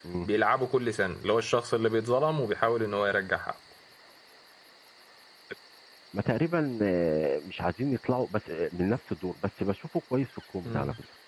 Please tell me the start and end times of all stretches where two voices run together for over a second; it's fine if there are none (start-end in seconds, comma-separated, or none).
none